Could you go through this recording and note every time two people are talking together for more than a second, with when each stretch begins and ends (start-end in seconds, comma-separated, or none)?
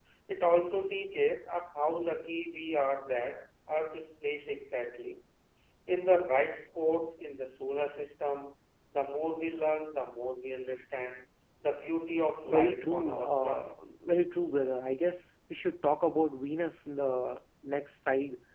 12.5-13.8